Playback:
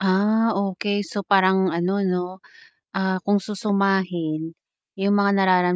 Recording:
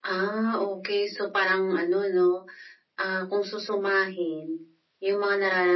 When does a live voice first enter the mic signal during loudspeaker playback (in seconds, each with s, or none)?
none